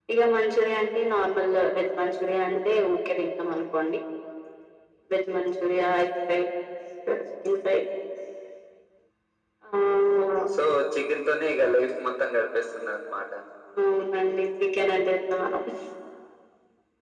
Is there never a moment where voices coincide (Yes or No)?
Yes